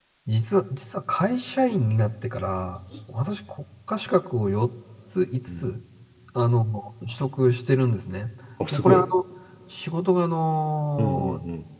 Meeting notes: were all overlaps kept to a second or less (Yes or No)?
Yes